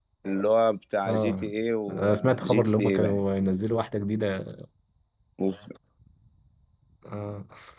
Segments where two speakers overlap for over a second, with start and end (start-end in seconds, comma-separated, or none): 1.9-3.2